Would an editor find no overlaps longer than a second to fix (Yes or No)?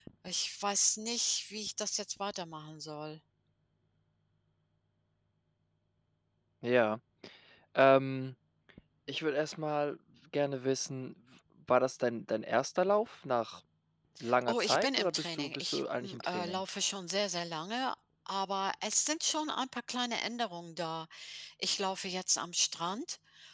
No